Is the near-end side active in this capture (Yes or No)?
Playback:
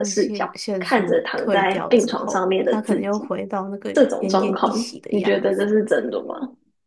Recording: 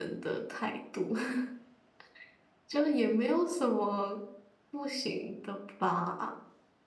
Yes